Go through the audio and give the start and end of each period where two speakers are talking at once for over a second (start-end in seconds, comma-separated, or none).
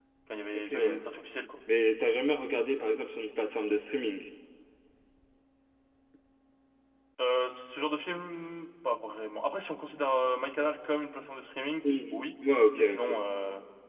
none